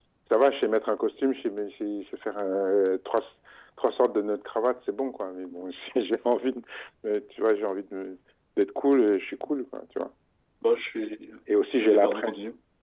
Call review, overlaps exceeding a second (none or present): none